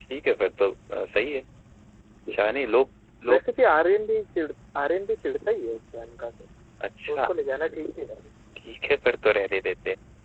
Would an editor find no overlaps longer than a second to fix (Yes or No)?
Yes